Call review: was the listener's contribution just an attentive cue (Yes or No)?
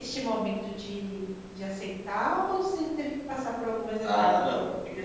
No